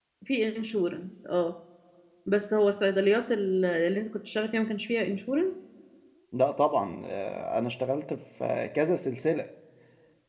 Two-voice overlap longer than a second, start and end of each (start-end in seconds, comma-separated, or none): none